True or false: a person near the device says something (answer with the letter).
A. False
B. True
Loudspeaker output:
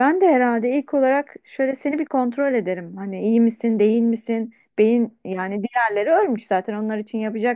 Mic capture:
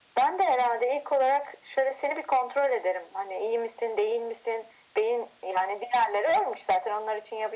A